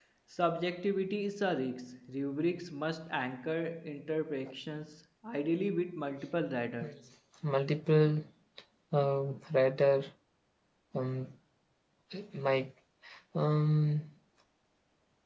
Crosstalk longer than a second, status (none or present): none